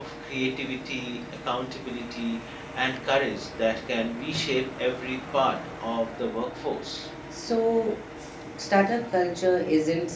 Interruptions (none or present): none